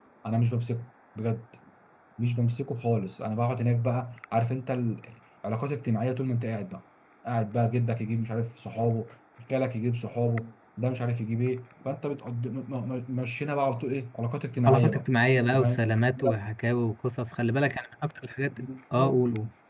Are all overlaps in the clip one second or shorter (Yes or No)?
Yes